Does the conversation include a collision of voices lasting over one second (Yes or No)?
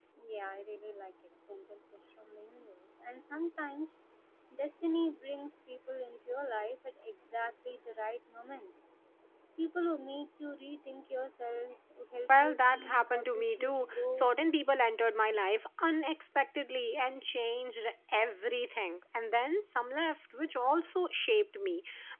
Yes